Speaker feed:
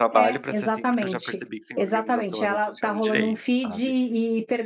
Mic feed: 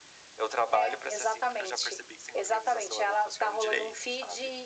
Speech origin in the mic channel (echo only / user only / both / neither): echo only